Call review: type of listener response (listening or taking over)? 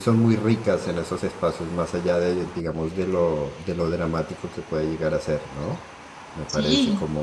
listening